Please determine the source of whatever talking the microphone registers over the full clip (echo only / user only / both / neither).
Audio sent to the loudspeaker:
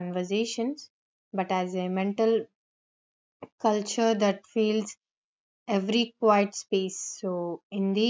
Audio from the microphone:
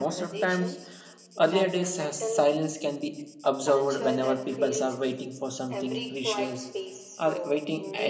both